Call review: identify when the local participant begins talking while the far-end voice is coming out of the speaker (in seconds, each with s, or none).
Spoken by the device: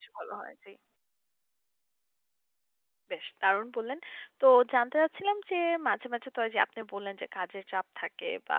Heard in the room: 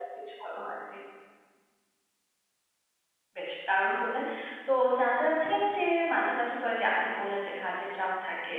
none